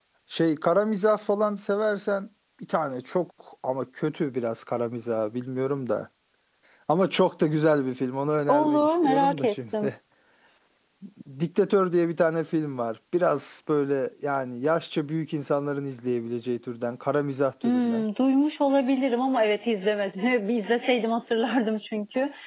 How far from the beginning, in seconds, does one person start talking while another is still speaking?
8.5 s

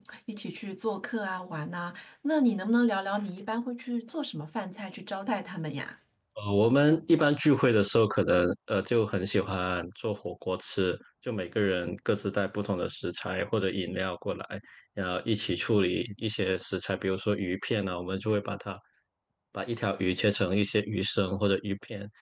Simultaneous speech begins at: none

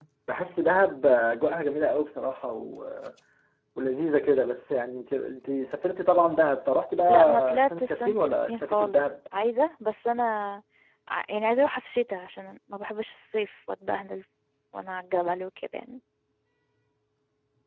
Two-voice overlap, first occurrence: 7.1 s

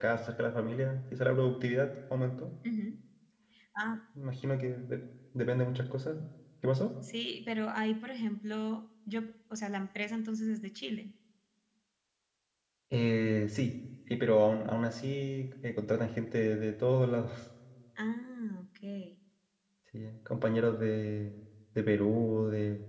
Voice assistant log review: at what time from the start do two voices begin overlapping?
none

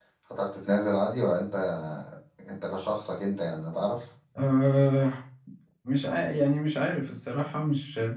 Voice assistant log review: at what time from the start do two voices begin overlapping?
none

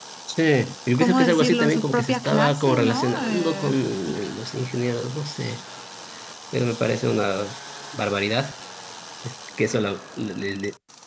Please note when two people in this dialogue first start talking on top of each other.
0.9 s

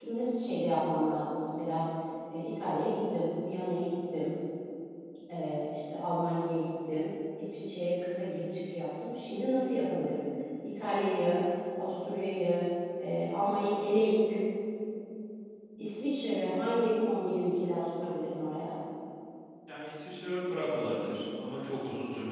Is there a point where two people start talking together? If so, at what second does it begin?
none

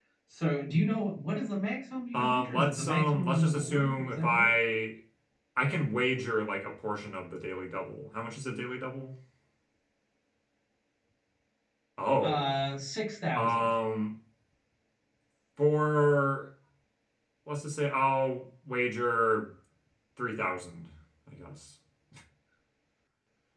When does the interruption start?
2.1 s

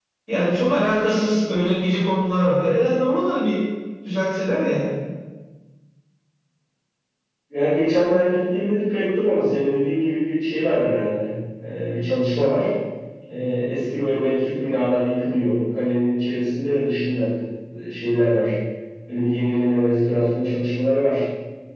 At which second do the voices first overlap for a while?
none

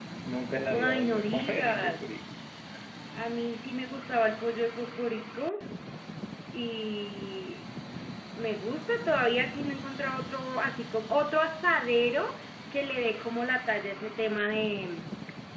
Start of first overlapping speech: 0.5 s

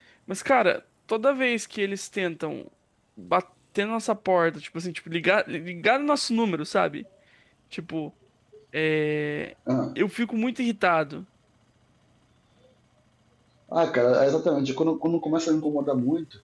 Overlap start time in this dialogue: none

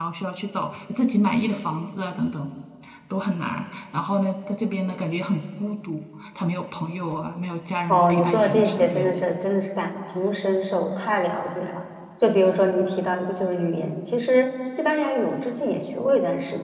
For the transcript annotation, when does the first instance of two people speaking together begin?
7.9 s

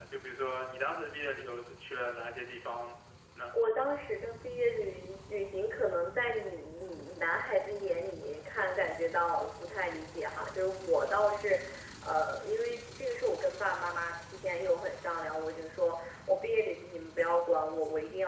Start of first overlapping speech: none

